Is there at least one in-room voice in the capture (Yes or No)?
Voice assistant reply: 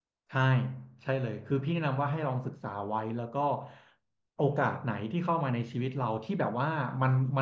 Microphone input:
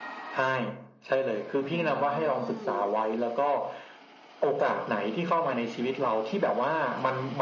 Yes